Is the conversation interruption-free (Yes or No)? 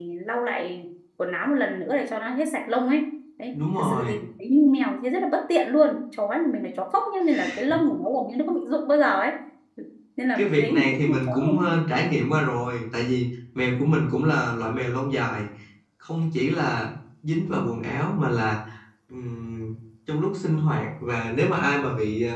No